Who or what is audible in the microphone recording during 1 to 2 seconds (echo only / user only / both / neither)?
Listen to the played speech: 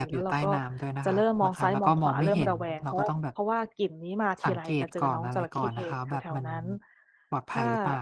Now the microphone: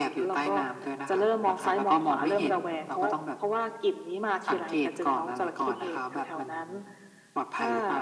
echo only